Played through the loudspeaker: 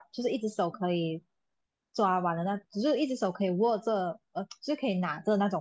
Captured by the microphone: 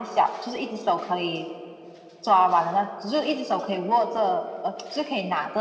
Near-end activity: none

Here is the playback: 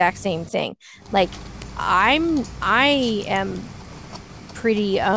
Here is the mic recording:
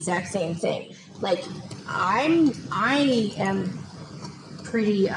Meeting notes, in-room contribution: none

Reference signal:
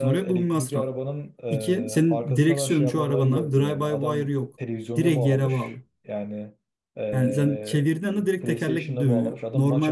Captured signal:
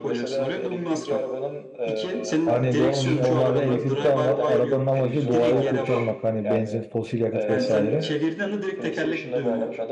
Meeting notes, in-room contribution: present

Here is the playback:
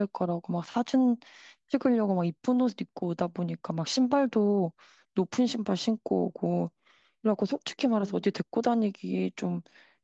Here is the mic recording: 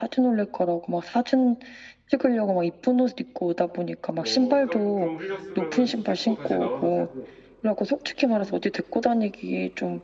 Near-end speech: present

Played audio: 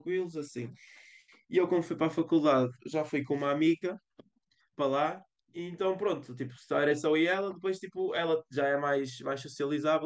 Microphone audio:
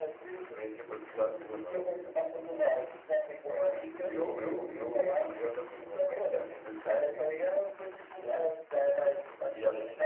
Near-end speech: present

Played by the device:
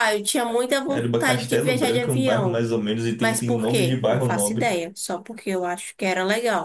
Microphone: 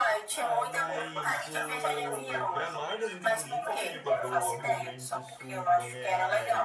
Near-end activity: present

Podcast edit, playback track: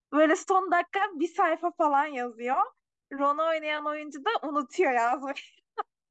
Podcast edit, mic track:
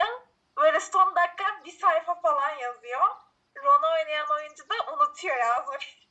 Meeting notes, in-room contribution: none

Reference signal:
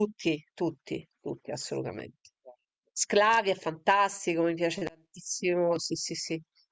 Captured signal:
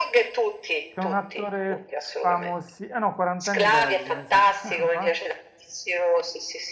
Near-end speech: present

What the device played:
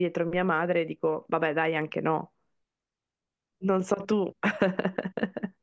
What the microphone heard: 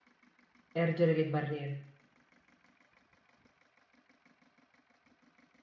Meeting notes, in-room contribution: present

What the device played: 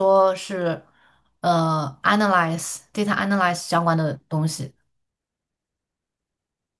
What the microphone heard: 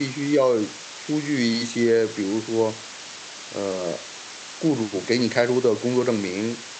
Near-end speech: present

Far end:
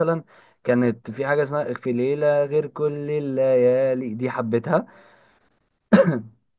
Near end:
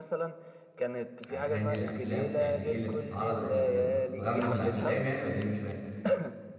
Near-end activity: present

